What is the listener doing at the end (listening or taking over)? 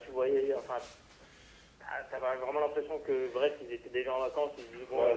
taking over